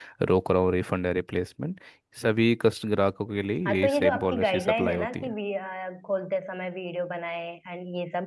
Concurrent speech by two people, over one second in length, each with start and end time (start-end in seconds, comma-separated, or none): 3.7-5.3